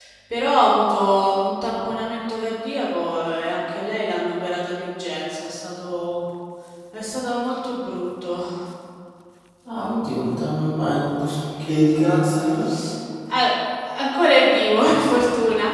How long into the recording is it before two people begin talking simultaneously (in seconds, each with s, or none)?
none